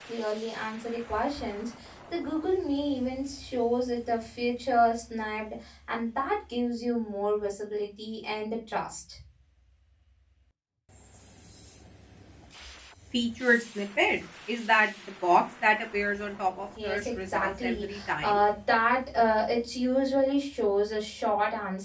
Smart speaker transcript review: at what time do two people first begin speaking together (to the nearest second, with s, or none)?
17 s